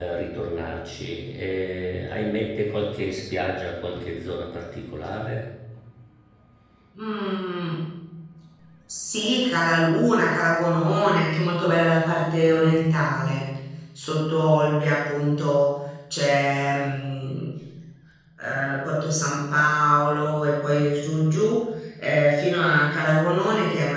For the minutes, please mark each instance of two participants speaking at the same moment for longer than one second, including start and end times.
none

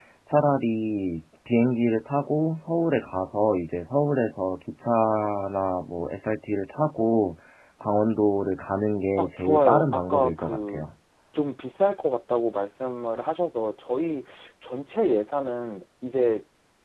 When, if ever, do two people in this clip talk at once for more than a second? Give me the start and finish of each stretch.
9.2-10.8

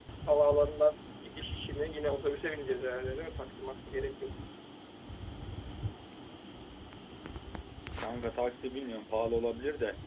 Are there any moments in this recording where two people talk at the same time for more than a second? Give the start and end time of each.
none

